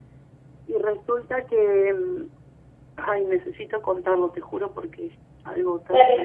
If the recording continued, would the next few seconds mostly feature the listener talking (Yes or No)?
Yes